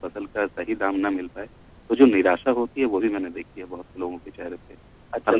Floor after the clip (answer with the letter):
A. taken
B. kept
A